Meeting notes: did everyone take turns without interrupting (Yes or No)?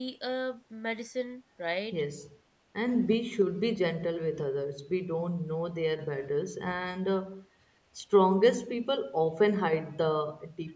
Yes